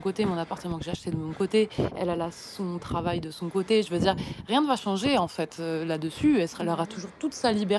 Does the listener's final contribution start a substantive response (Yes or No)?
No